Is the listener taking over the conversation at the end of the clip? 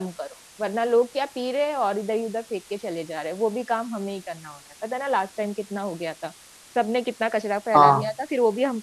No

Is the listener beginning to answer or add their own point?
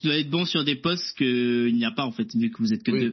Yes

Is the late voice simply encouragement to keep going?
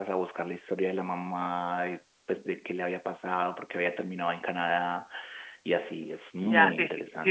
No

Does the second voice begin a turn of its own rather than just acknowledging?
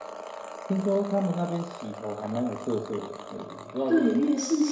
Yes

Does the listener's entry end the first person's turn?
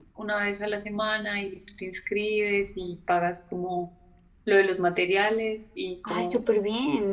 Yes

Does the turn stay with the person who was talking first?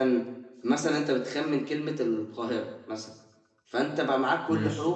Yes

